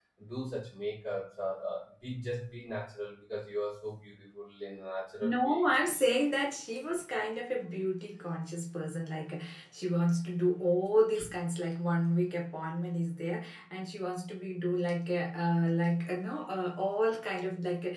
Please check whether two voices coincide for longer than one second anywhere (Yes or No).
No